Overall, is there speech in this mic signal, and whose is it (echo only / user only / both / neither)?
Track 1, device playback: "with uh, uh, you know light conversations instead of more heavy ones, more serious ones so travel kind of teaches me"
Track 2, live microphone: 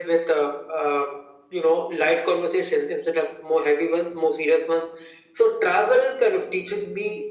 echo only